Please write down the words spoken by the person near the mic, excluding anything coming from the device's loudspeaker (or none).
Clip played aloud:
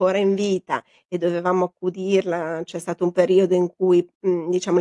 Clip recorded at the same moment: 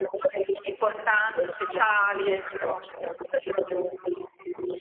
Importanti, speciali, ecco.